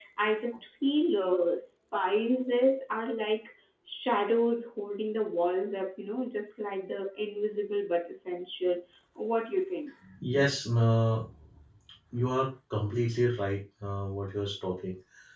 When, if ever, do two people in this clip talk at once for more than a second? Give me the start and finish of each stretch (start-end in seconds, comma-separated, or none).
none